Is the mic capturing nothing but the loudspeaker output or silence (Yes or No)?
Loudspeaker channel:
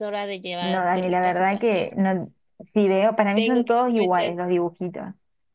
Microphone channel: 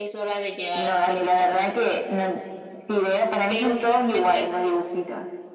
Yes